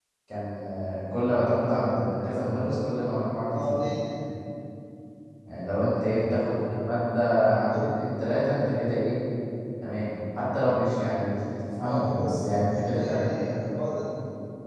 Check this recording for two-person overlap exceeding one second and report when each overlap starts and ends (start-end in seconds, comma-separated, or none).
11.8-13.3